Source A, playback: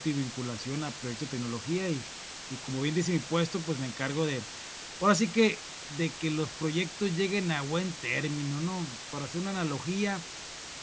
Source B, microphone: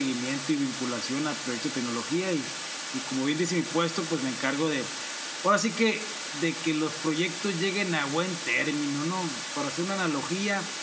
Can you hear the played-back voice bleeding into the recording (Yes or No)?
Yes